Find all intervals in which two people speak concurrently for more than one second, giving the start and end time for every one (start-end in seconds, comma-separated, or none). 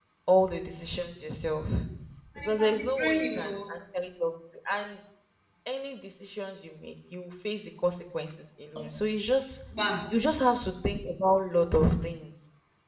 2.4-3.7